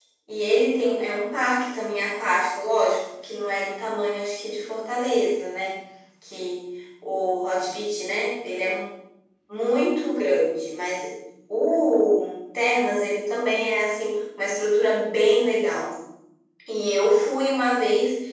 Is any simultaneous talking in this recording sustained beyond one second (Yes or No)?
No